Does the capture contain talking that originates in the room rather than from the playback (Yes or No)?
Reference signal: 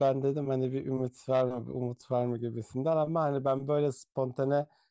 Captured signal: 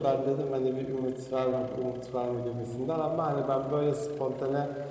No